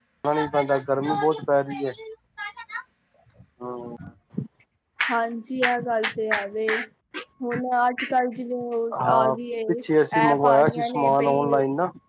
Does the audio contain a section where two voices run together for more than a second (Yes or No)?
Yes